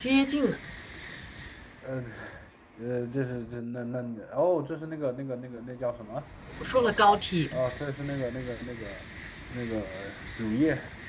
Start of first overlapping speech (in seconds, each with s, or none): none